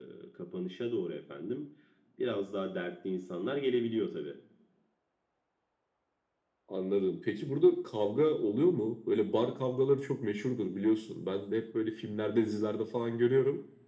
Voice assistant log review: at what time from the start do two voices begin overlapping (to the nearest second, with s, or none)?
none